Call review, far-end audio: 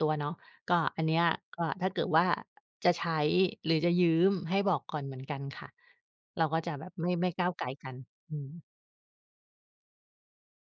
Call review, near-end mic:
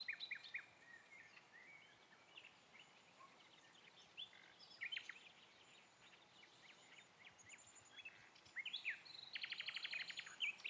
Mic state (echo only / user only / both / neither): neither